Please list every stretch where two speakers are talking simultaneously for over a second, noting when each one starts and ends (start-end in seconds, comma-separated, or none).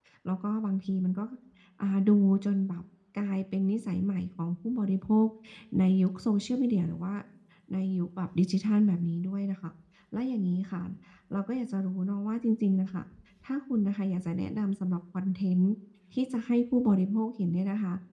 none